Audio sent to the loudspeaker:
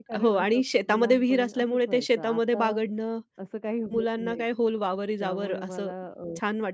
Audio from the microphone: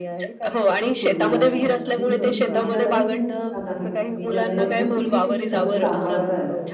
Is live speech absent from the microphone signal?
No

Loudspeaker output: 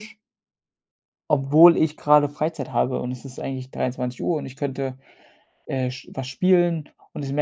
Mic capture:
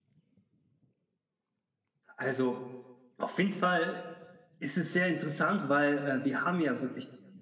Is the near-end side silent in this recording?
No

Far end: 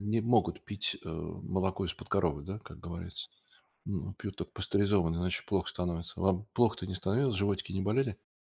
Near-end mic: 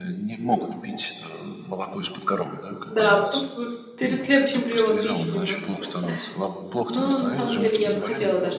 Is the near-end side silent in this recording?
No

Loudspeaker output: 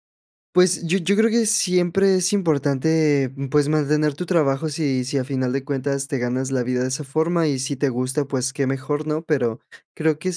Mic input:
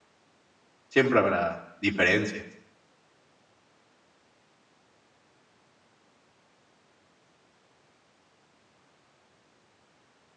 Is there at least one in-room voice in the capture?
Yes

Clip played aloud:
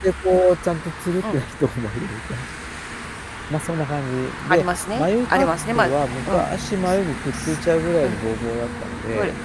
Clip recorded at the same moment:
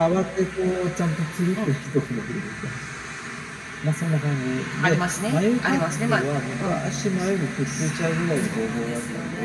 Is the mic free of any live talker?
No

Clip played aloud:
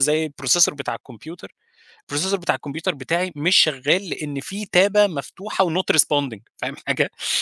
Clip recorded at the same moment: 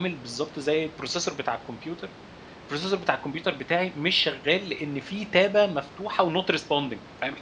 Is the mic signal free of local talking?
Yes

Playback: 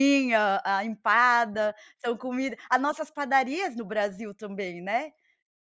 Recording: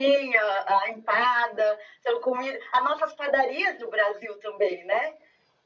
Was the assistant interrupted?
No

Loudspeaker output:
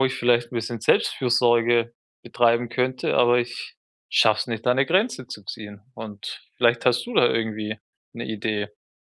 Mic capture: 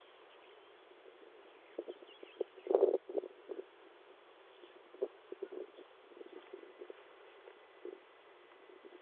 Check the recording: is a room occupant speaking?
No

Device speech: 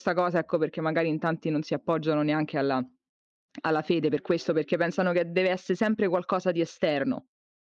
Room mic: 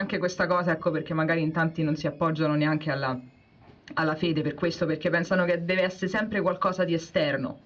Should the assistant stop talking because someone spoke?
No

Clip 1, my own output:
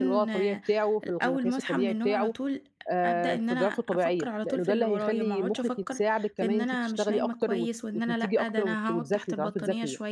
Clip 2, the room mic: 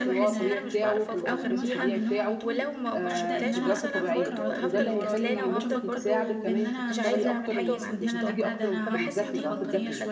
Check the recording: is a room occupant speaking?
Yes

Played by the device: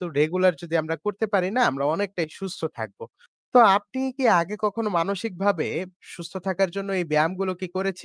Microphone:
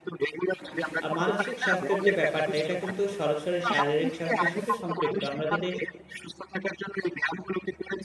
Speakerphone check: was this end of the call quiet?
No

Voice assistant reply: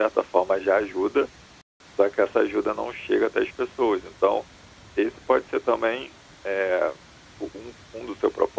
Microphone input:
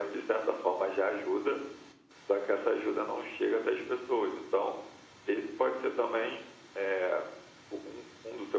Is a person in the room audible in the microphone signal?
No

